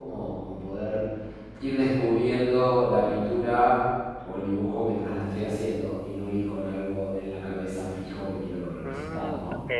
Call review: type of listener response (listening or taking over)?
taking over